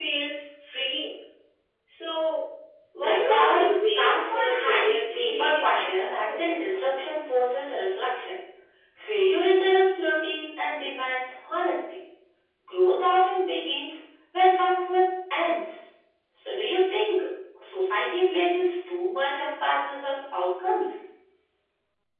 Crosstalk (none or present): present